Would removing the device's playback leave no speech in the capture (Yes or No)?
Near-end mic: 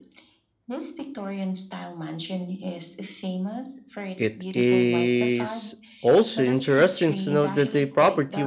No